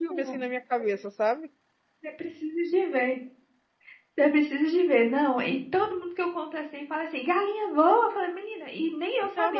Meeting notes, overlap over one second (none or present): none